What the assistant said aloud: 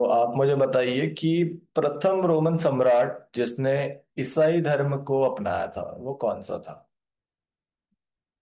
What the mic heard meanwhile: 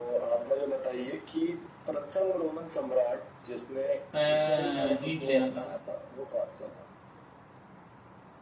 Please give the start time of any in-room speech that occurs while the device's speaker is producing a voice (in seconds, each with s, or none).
4.1 s